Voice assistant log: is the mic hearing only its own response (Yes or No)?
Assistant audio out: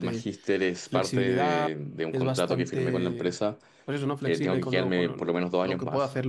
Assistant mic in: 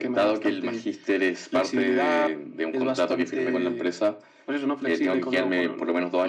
Yes